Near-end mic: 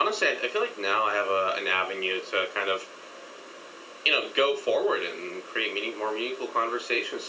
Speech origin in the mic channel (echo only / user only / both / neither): echo only